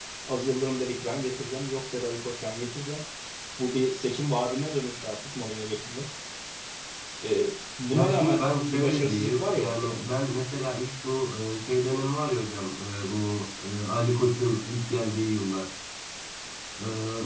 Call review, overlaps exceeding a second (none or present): present